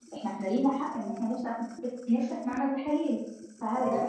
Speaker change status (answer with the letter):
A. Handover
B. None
B